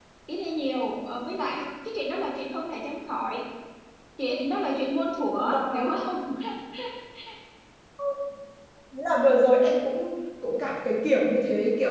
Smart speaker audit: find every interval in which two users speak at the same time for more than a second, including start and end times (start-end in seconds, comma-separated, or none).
none